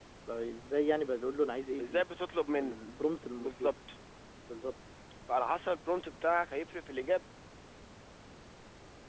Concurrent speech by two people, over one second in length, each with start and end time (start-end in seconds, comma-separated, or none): none